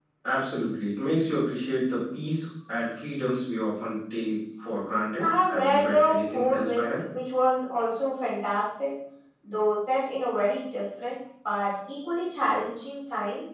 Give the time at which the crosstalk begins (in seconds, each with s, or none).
5.2 s